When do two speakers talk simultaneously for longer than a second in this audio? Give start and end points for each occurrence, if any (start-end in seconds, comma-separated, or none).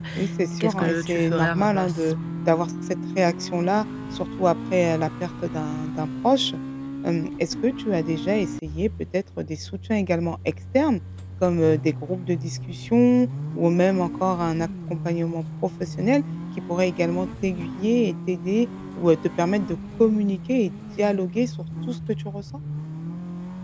0.6-2.1